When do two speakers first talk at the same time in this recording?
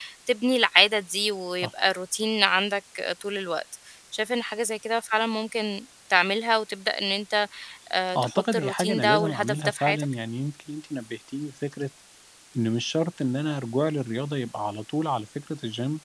8.2 s

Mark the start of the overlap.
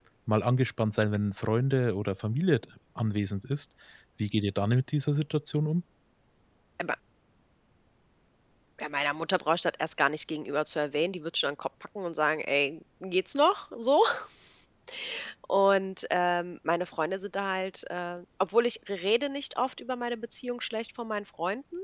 none

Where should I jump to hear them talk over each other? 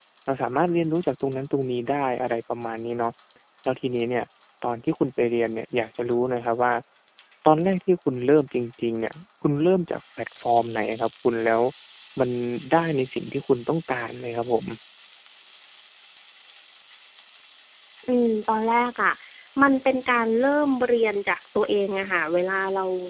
none

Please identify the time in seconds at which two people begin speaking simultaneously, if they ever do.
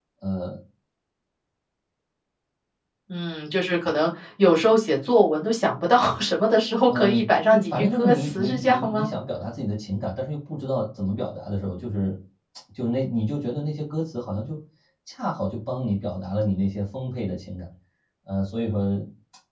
6.9 s

